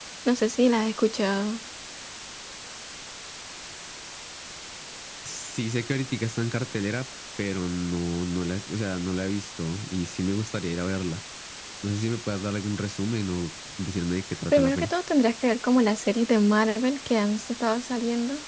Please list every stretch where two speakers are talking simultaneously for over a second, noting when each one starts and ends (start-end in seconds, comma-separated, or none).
none